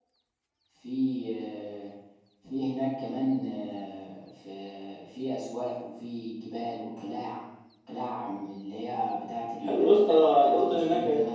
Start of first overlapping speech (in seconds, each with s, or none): 9.6 s